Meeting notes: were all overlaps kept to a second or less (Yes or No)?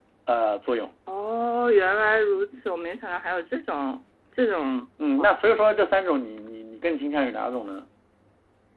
Yes